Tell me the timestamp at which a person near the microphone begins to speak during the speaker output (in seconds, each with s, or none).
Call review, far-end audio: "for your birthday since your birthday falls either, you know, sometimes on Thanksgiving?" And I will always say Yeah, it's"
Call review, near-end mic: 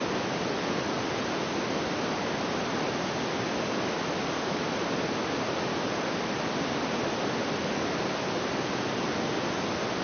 none